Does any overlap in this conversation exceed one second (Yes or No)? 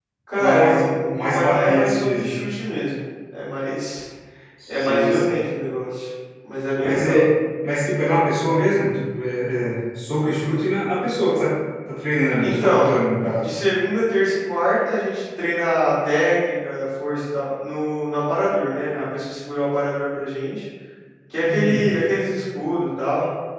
Yes